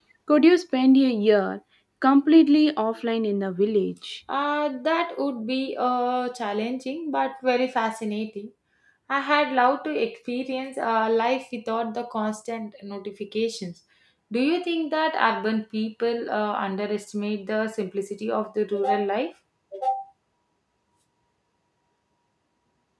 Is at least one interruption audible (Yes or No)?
No